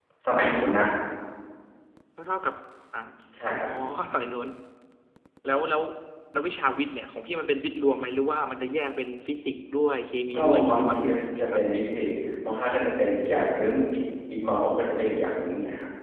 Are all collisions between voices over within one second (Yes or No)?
No